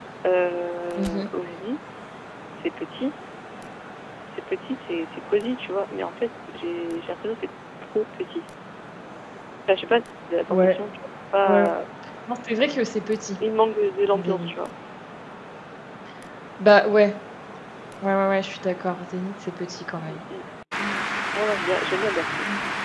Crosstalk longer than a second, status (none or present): none